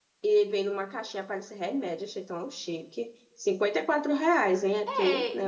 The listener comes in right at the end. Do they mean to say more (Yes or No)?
Yes